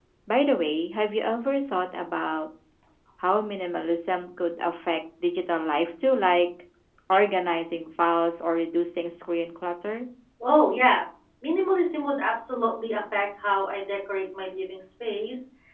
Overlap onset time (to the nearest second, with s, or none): none